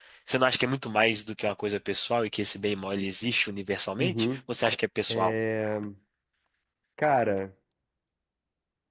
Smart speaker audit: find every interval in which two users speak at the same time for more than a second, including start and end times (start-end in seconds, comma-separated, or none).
none